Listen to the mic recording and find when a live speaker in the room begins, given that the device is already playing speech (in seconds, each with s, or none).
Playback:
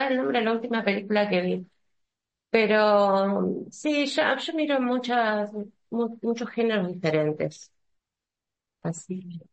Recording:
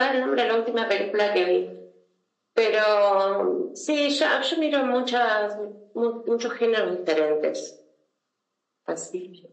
none